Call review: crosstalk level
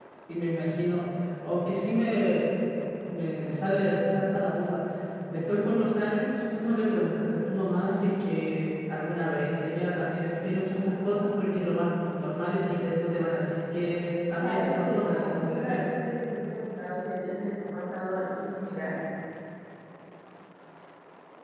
present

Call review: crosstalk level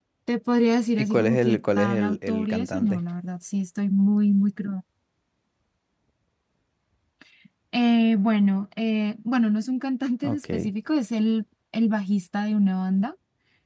present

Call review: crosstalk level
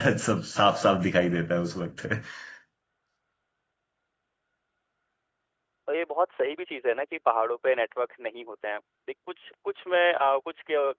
none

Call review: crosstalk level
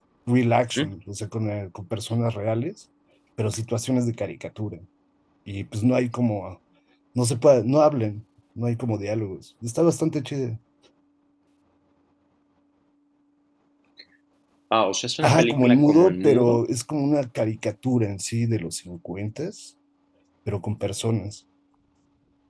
present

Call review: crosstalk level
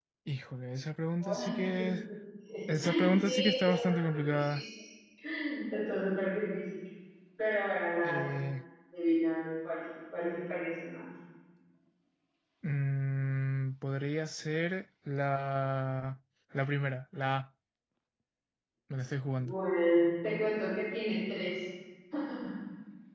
present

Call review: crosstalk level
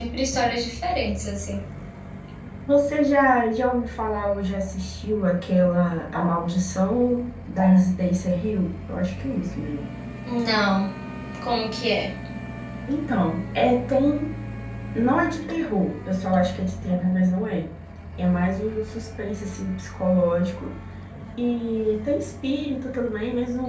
none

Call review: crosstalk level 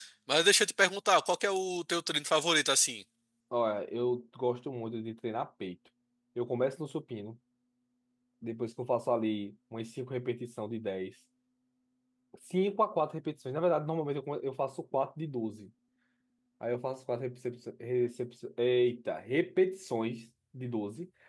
none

